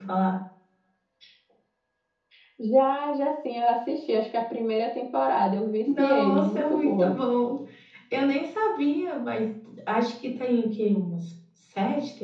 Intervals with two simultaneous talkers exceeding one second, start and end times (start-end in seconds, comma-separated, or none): 5.8-7.2